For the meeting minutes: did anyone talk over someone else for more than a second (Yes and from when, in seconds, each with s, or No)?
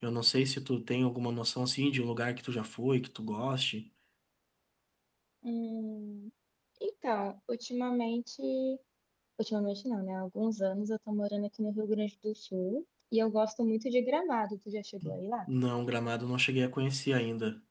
No